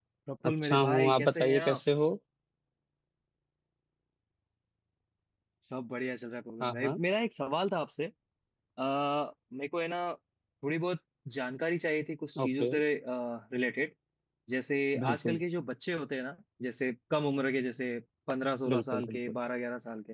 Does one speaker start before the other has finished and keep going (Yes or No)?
Yes